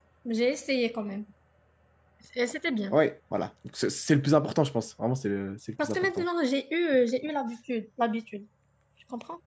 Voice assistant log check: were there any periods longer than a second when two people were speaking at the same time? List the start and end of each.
none

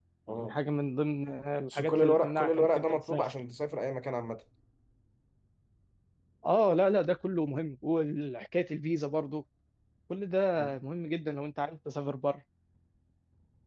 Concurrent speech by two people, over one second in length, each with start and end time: 1.7-3.3

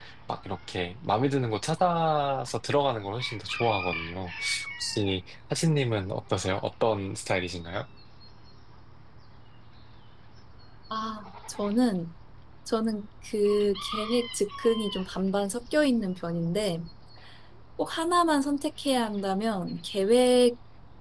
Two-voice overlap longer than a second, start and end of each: none

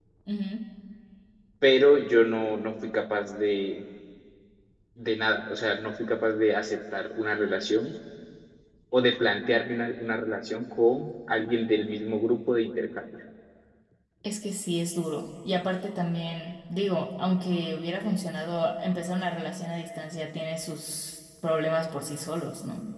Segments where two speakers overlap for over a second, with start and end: none

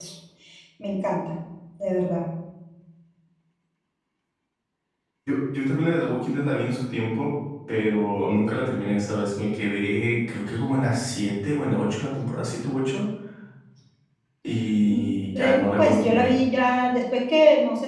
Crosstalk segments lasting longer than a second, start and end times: 14.8-16.4

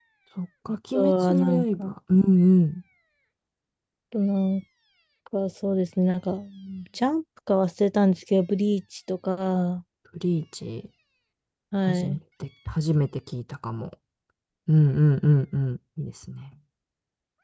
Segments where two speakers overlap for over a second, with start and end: 0.7-1.9

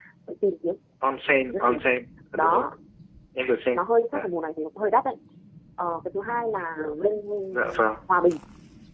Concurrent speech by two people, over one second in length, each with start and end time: none

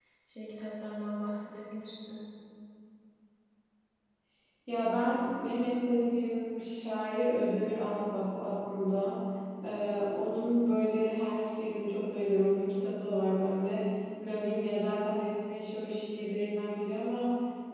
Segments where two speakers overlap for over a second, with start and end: none

